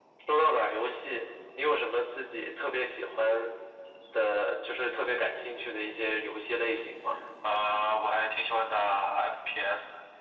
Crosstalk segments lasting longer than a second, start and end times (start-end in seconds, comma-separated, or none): none